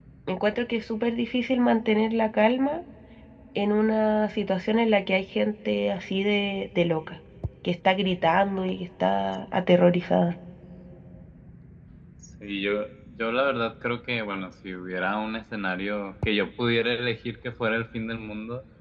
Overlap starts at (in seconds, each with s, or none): none